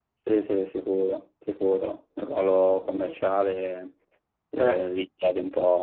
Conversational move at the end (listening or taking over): listening